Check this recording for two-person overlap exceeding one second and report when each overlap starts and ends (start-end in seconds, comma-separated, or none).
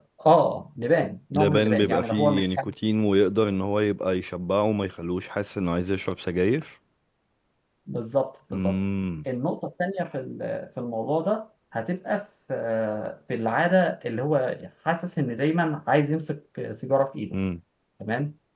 1.3-2.7